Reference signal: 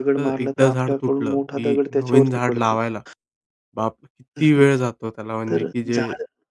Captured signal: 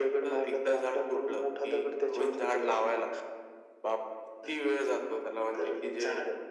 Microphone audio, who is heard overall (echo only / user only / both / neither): echo only